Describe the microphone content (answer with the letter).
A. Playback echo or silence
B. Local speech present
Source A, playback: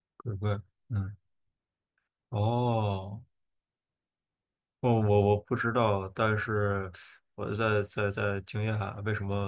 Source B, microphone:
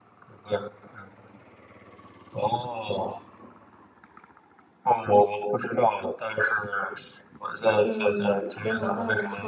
B